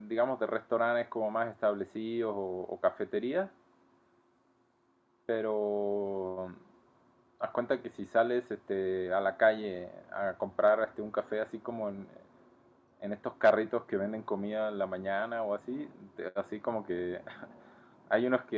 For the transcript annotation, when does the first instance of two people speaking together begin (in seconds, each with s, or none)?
none